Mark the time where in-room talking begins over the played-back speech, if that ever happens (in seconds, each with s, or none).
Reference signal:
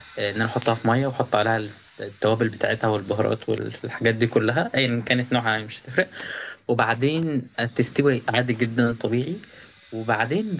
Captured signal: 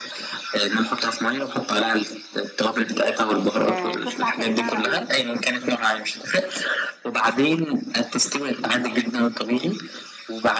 3.7 s